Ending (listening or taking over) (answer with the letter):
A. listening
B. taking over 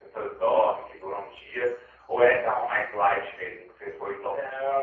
B